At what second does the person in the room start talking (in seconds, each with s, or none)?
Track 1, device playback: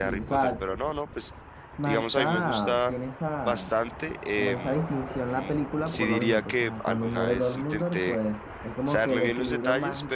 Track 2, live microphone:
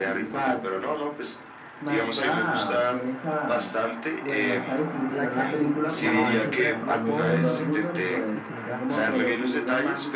4.2 s